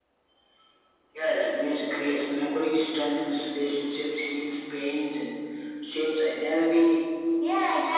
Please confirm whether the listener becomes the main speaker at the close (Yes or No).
Yes